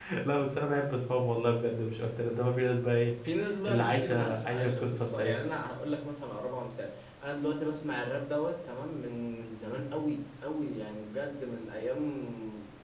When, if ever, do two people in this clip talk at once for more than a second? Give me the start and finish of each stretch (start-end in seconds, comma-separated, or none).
3.6-5.4